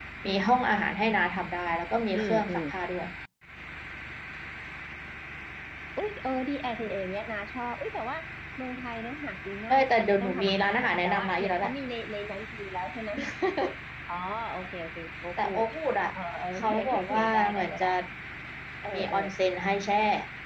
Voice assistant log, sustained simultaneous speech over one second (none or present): present